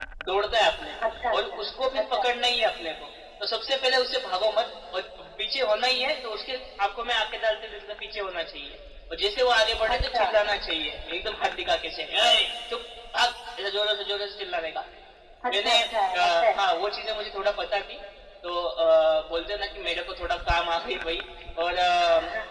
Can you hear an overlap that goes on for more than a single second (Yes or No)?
No